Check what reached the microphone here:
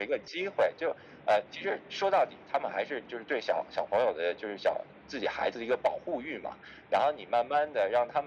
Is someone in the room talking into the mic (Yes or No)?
No